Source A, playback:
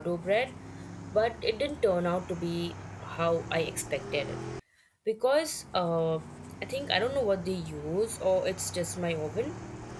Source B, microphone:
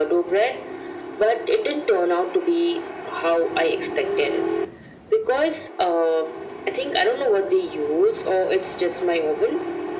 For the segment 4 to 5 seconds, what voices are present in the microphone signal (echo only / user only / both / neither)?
echo only